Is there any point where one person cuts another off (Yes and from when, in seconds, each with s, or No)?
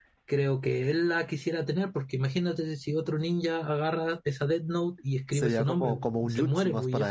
Yes, from 5.3 s